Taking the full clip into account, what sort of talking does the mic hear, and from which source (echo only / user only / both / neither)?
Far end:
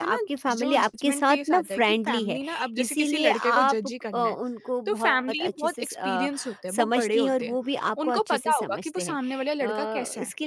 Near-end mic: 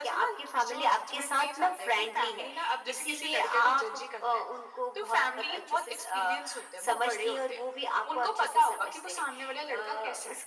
echo only